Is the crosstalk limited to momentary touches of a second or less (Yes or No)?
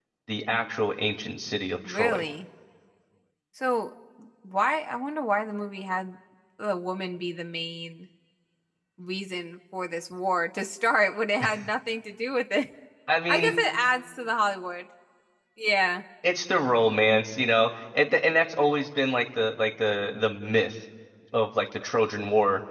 Yes